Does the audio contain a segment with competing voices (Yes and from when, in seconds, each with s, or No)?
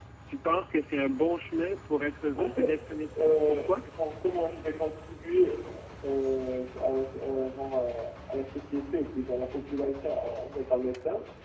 Yes, from 2.4 s